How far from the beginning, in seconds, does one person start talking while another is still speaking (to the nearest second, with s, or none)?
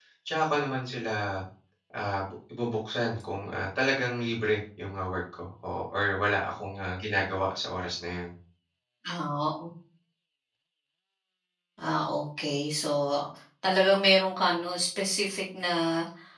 none